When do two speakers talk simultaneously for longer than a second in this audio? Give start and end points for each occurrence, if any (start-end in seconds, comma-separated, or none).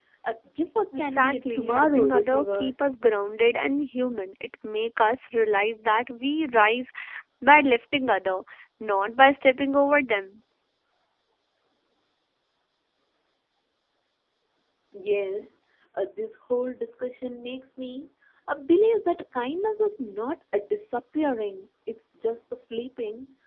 1.0-2.7